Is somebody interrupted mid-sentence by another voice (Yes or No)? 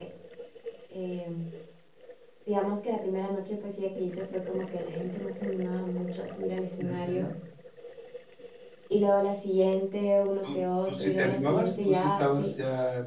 Yes